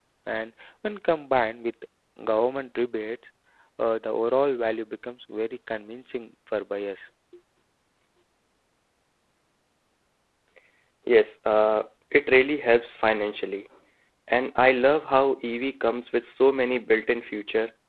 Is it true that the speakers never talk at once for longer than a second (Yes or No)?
Yes